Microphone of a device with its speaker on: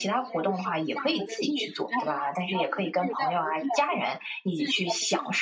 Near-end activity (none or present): present